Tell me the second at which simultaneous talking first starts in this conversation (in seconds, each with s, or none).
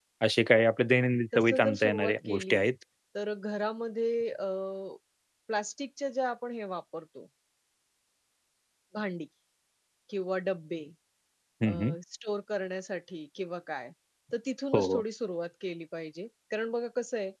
1.4 s